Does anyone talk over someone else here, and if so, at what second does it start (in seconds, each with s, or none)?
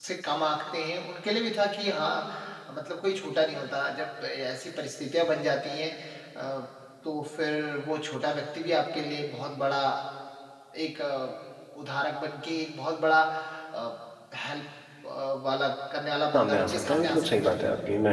16.3 s